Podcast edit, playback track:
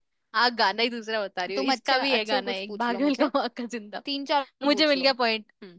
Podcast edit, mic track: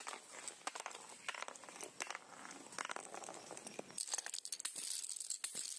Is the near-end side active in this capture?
No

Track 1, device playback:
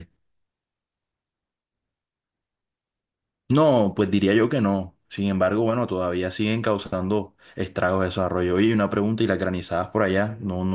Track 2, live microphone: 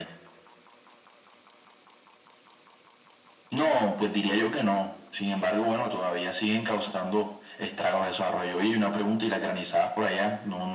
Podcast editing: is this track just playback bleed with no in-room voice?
Yes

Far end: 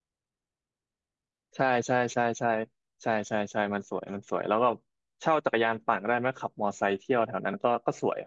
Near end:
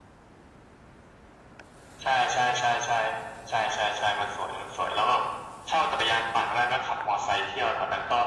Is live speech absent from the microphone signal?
Yes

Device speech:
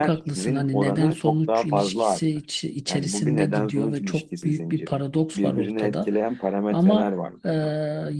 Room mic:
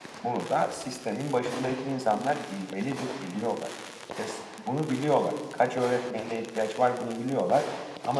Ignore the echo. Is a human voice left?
Yes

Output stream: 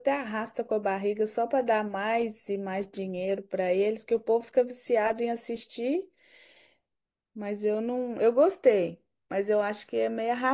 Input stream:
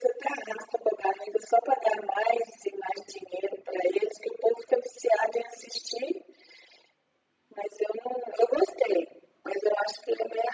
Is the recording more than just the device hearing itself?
No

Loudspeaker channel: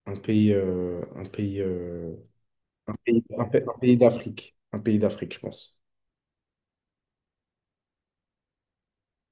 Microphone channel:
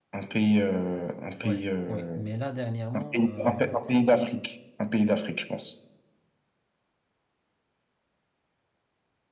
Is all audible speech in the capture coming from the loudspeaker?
No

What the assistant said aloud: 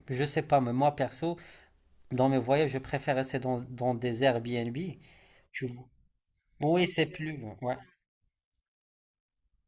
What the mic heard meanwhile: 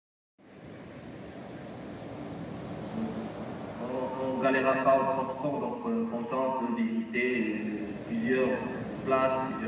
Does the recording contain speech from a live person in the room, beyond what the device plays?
Yes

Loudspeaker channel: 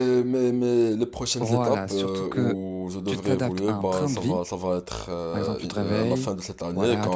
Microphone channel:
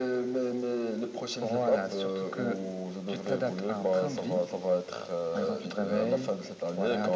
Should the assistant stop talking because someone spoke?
No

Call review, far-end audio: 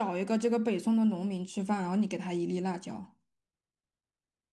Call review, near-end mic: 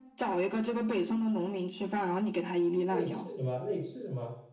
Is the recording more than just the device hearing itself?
Yes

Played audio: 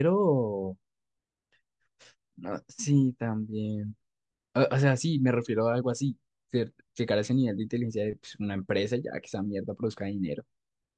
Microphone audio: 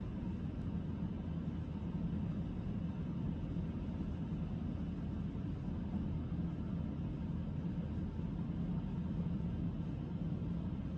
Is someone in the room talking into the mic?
No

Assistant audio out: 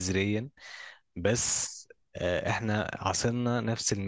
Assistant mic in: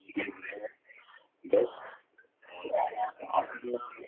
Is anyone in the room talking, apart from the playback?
No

